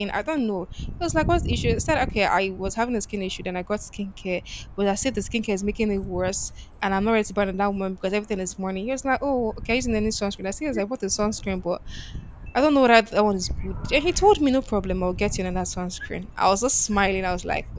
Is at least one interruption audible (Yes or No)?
No